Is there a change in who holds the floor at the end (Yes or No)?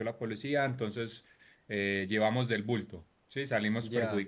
Yes